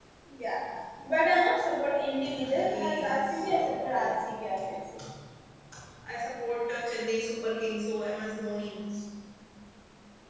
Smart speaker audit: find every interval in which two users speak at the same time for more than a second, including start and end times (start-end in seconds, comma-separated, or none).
2.5-4.1